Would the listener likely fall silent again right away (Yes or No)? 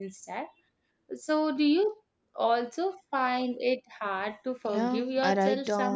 No